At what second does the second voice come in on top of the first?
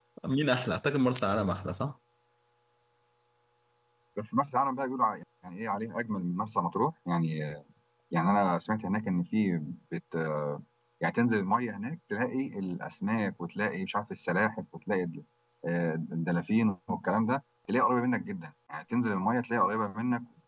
none

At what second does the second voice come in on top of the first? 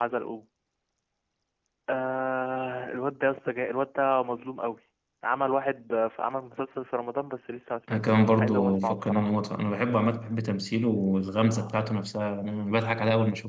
7.9 s

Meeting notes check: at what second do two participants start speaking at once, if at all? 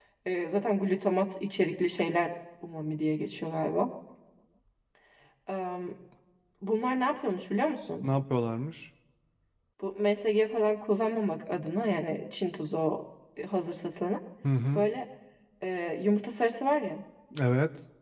none

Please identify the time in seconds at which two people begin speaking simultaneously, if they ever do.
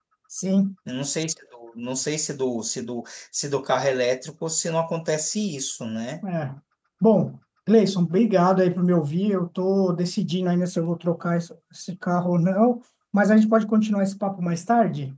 none

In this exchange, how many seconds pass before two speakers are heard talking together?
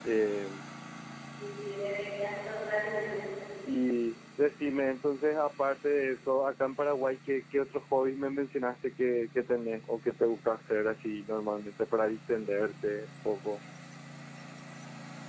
none

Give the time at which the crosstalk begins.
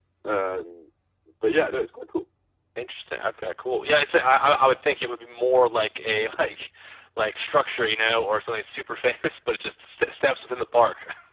none

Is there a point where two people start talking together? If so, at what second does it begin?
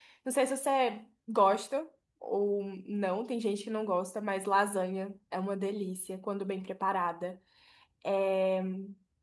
none

